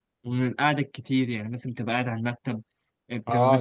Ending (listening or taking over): taking over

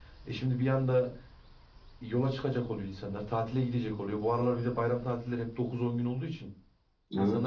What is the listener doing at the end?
listening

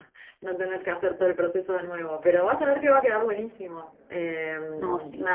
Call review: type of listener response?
listening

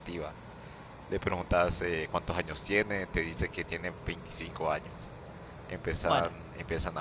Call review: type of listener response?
listening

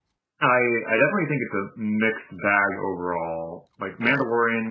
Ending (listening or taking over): listening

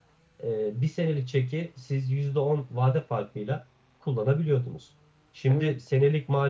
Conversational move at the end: listening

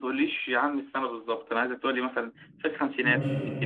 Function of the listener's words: taking over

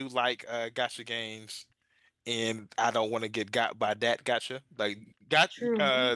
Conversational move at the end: listening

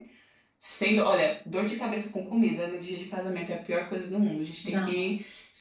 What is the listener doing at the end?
listening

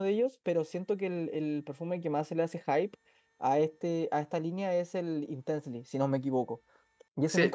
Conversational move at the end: taking over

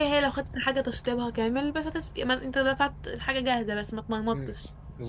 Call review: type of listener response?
taking over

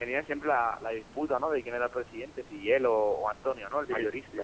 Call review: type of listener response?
taking over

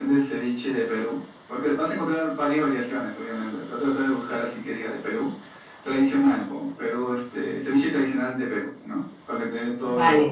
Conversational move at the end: taking over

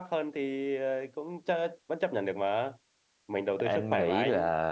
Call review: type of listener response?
taking over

